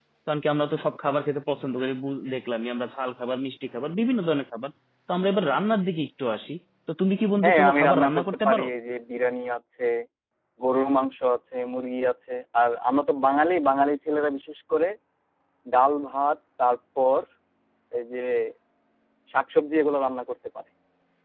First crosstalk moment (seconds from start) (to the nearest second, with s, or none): 7 s